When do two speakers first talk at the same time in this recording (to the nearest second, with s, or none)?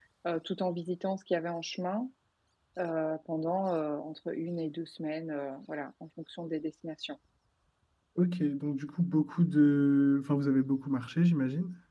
none